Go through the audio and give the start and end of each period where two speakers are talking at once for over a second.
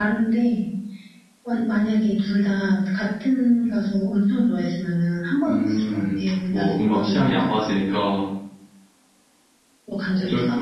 5.5-7.3

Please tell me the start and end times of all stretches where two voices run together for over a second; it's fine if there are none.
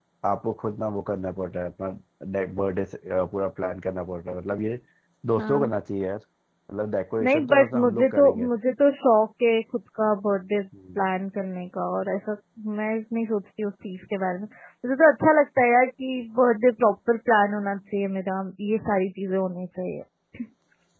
7.2-8.5

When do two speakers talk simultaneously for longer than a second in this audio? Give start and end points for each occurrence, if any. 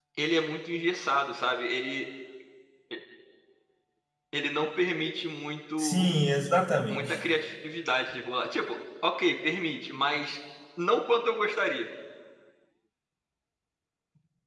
none

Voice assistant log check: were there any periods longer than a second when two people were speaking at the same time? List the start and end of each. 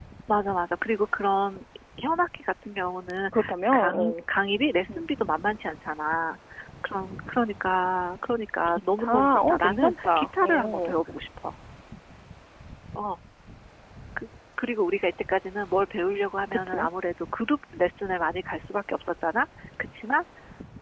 8.7-10.9

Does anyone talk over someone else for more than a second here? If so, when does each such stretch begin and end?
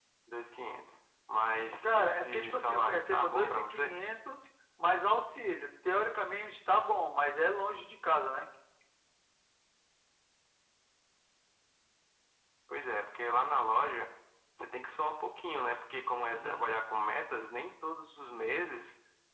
1.8-3.9

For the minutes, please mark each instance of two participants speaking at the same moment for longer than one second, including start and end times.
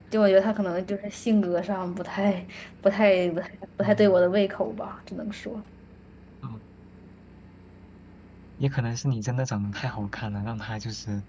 none

